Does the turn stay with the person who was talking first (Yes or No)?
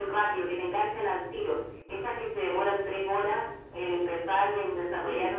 Yes